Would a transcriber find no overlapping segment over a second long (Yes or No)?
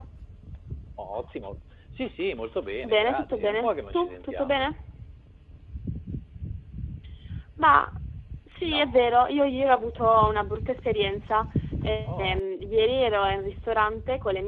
No